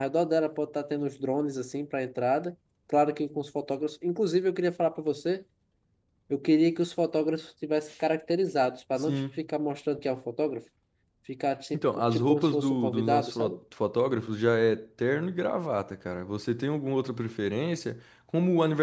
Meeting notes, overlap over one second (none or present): present